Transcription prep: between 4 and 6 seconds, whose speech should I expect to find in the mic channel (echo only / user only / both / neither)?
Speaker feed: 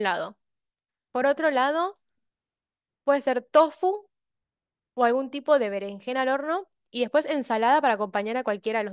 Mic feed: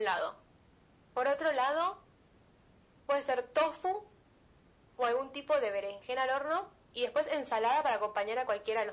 echo only